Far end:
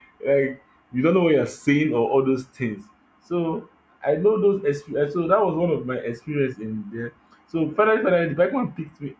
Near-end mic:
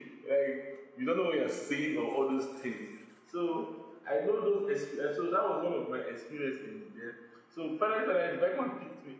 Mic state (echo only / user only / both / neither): echo only